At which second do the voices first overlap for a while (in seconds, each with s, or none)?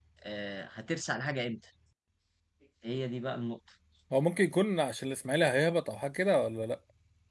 none